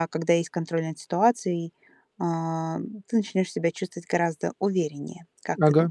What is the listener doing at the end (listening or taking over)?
taking over